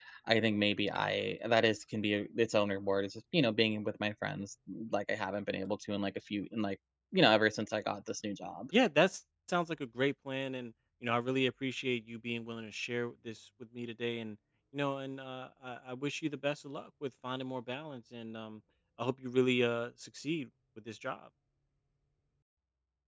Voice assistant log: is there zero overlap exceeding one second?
Yes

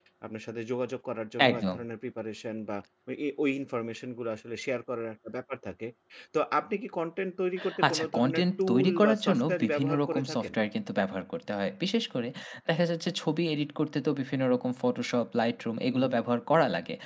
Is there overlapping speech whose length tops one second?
Yes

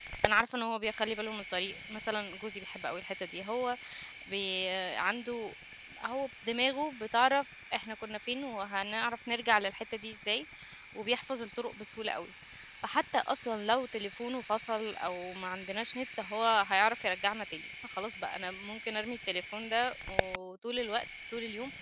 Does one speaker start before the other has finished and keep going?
No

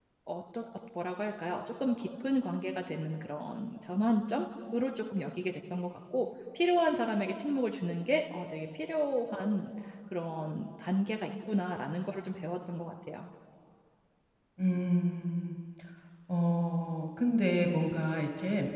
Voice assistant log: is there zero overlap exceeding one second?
Yes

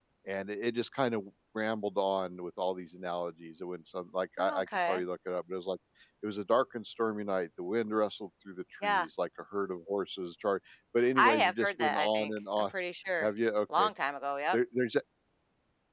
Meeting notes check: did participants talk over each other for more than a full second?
Yes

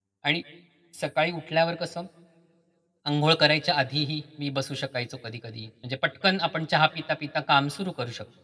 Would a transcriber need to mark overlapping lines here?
No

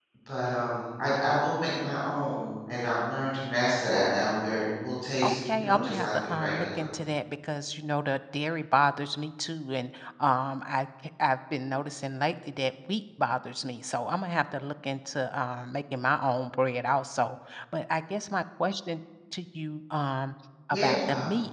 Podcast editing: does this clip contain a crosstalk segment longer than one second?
Yes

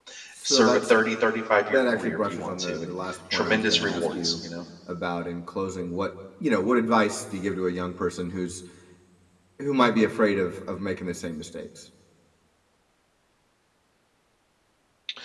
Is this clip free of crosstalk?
No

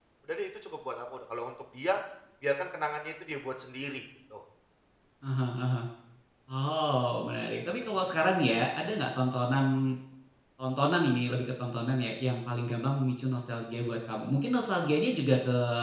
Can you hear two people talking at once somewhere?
No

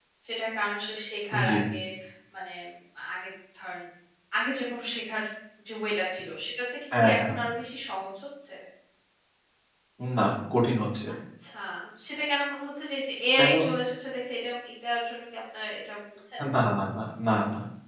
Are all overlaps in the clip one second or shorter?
Yes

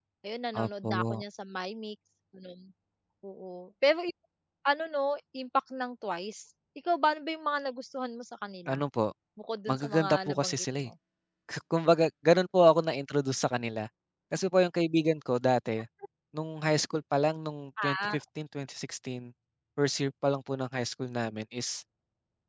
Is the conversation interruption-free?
No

